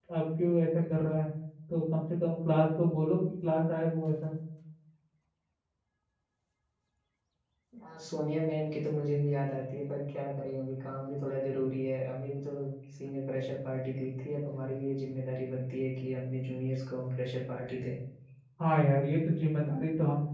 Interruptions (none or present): none